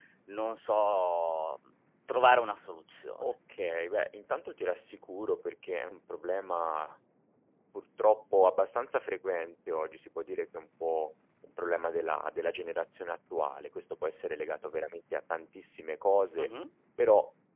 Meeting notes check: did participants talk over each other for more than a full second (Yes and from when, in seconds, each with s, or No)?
No